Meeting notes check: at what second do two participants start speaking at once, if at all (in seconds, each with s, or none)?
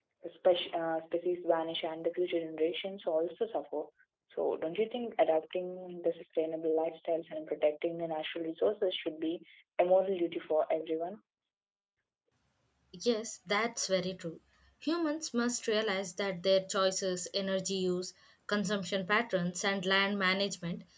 none